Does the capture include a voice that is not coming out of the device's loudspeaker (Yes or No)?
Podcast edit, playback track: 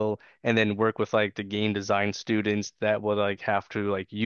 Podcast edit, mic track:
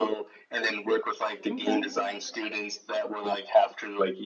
Yes